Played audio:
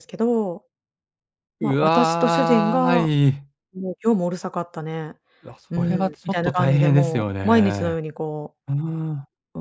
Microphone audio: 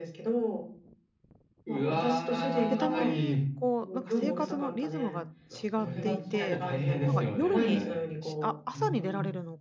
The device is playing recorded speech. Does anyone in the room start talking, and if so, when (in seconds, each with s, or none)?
2.4 s